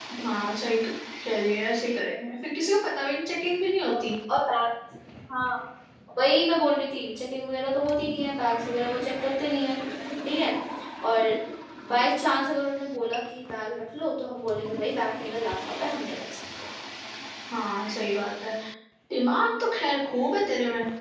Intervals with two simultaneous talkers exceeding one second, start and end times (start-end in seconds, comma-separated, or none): none